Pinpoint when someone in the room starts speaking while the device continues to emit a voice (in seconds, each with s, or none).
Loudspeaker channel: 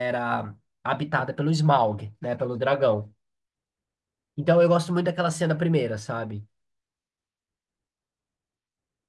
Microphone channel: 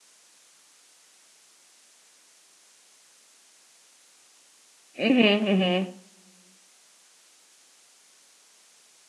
5.0 s